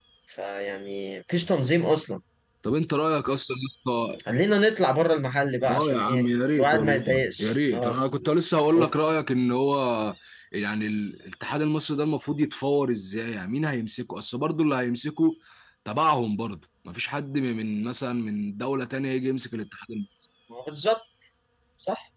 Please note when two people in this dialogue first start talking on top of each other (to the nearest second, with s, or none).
6 s